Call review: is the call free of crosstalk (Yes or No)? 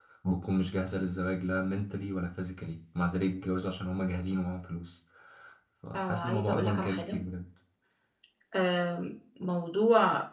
No